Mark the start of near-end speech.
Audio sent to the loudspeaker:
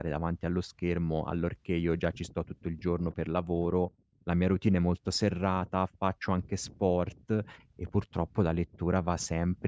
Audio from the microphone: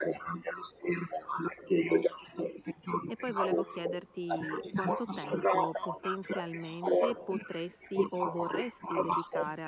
3.1 s

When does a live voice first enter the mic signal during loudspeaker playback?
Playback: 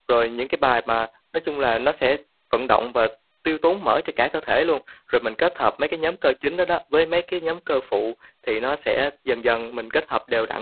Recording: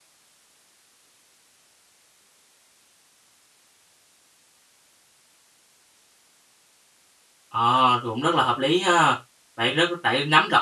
7.5 s

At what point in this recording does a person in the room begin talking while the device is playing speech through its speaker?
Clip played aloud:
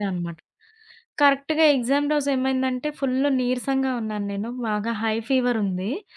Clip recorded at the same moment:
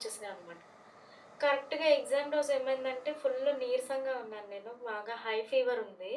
none

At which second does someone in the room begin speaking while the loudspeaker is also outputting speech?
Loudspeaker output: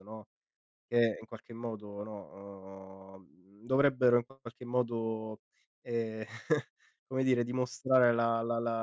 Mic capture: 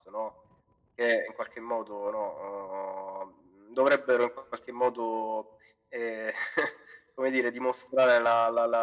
none

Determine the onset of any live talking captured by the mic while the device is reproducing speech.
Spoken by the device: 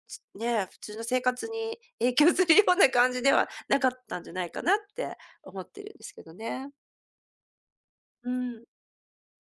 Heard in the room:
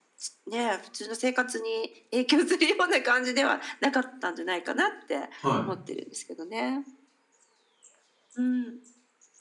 5.4 s

